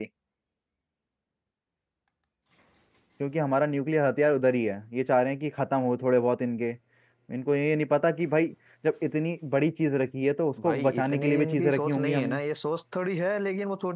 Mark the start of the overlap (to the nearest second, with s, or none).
11 s